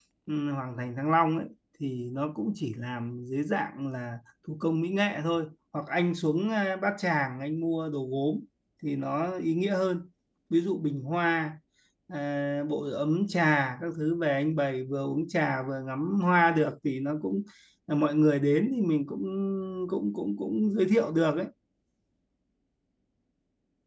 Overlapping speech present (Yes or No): No